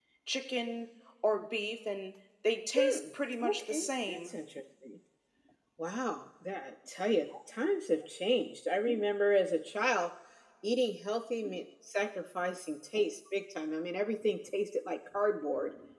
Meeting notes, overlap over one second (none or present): present